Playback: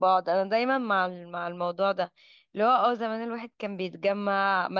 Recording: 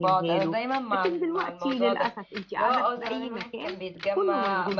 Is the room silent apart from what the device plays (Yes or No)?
No